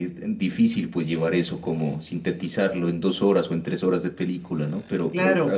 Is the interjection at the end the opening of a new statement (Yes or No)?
Yes